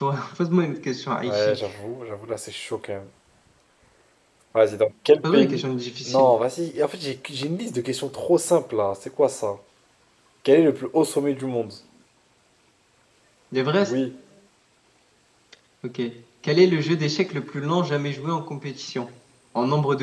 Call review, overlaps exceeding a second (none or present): none